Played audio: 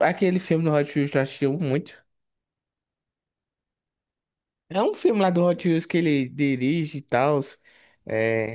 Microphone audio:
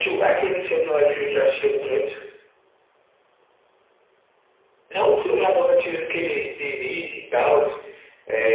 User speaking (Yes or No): No